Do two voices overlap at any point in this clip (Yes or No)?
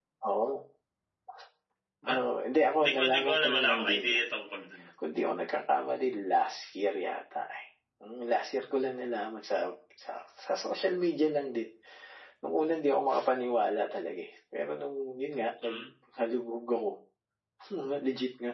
Yes